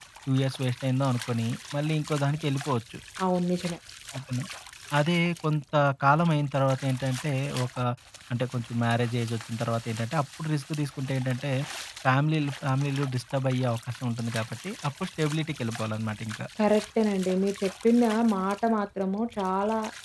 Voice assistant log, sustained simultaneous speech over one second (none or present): none